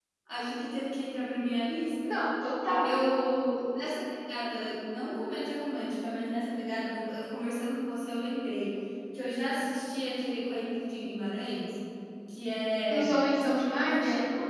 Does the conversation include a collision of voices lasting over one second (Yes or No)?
No